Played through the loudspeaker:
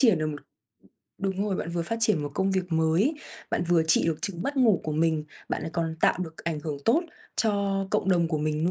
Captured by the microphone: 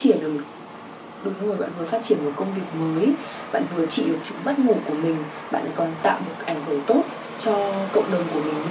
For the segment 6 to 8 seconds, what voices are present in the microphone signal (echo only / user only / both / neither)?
echo only